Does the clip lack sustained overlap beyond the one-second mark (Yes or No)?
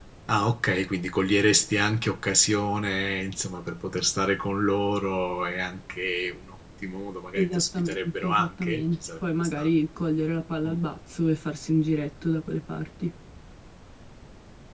No